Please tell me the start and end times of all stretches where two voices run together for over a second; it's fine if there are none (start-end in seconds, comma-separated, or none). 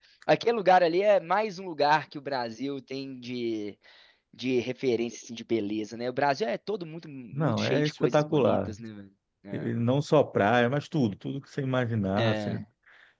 7.3-8.6